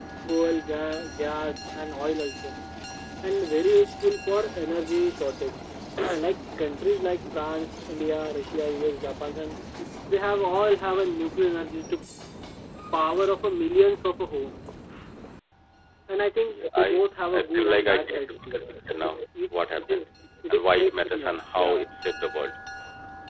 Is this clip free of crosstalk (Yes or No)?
No